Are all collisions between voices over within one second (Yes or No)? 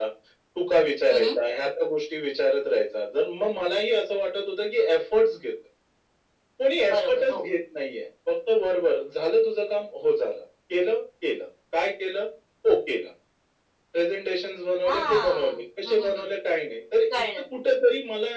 No